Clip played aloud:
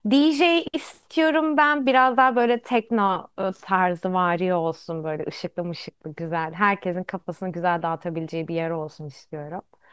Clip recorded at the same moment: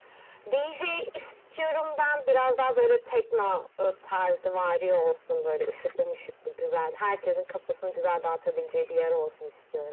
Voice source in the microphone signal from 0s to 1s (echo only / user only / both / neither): echo only